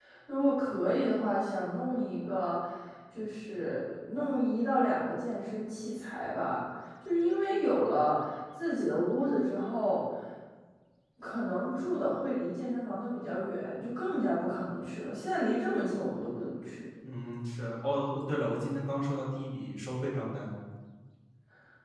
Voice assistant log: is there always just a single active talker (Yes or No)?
Yes